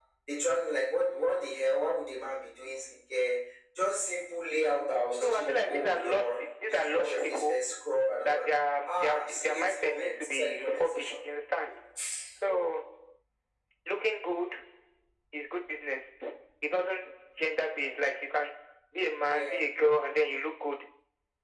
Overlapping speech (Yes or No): Yes